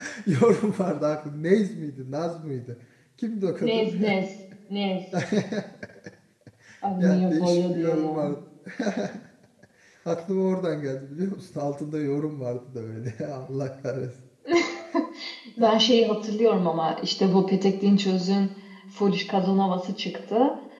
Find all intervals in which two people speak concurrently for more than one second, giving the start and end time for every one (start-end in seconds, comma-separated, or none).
7.0-8.3